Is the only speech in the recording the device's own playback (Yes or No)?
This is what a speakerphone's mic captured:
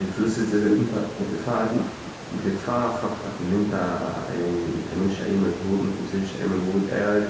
No